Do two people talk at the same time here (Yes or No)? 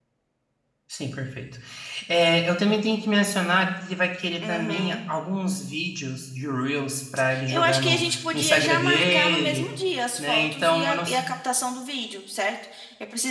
Yes